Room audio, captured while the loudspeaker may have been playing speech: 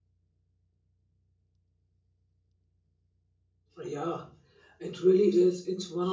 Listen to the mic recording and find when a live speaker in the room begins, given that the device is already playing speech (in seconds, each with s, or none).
3.8 s